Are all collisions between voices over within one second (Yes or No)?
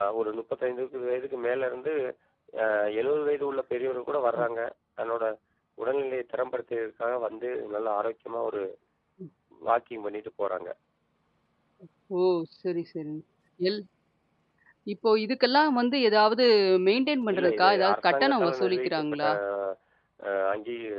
No